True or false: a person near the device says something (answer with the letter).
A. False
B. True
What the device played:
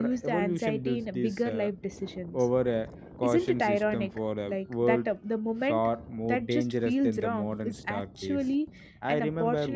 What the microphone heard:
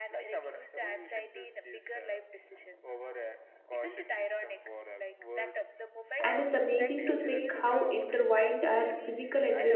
B